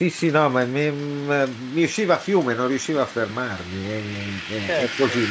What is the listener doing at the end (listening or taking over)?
listening